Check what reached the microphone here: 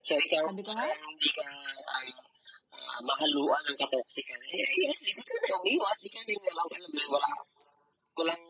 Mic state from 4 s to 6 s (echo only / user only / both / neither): echo only